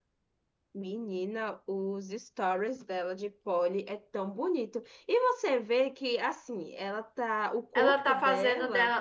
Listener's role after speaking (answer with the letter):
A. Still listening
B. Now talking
B